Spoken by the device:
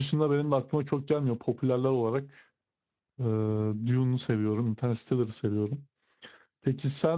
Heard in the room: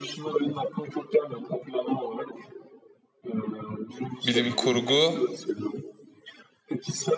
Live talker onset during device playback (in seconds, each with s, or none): 4.2 s